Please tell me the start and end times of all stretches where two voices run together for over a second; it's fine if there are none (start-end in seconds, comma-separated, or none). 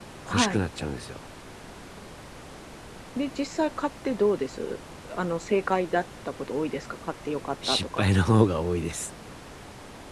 none